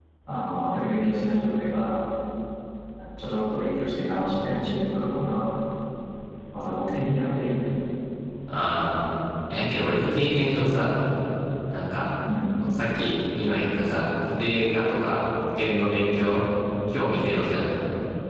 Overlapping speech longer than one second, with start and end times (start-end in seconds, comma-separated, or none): none